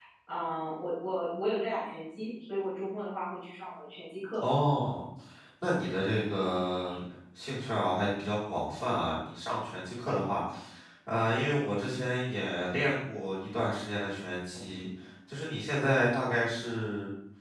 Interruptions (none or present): none